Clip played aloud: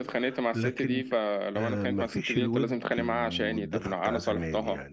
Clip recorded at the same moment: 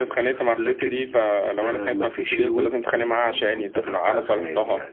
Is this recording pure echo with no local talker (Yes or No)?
Yes